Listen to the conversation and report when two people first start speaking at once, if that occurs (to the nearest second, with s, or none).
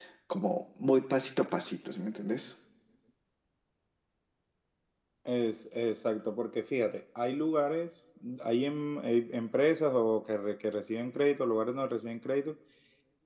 none